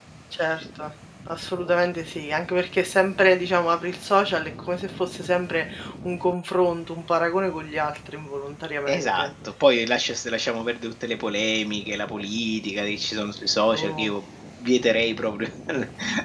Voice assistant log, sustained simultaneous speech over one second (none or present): none